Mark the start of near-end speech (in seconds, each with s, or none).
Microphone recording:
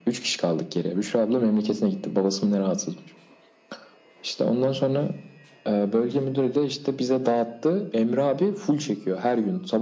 none